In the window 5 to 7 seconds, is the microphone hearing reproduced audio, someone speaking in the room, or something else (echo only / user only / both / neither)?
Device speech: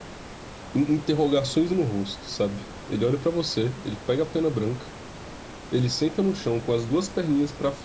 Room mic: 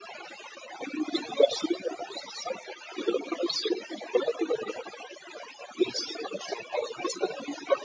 echo only